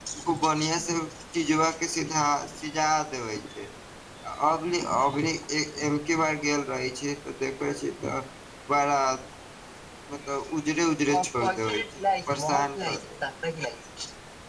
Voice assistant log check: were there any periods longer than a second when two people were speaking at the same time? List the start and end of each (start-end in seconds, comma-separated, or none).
11.1-13.1